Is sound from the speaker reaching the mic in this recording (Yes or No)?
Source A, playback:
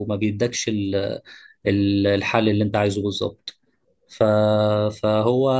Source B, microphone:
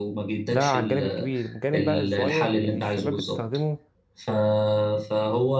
Yes